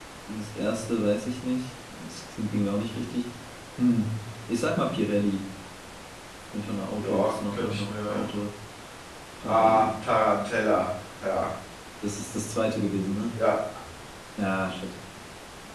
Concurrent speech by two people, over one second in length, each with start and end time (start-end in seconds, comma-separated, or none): 7.0-8.3